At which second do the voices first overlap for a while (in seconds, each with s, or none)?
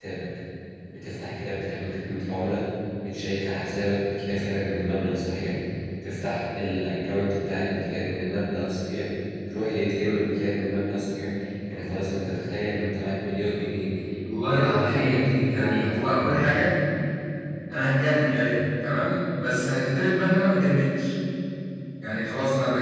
14.5 s